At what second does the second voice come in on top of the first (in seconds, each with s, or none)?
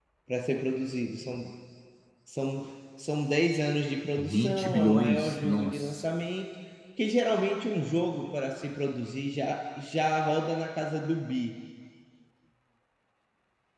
4.2 s